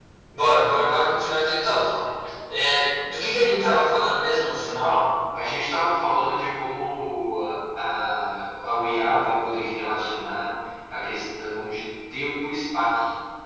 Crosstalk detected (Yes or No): No